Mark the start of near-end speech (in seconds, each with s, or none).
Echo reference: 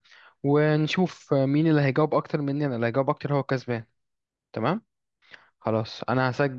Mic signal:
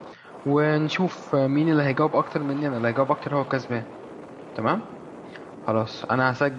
none